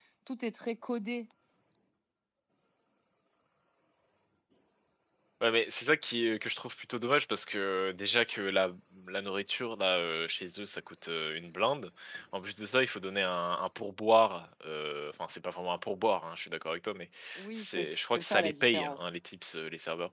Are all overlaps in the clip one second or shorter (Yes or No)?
No